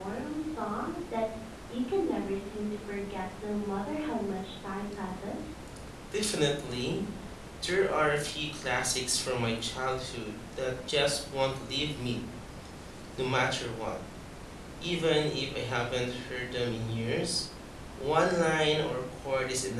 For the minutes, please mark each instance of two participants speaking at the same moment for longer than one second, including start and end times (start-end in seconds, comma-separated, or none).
none